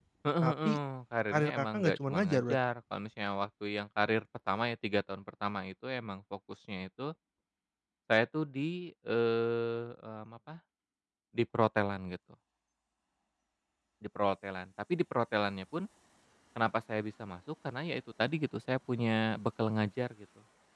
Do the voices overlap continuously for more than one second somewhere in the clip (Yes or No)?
Yes